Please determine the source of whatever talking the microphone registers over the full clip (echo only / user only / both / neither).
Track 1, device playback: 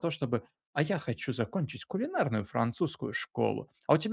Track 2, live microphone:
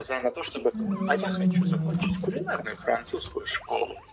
both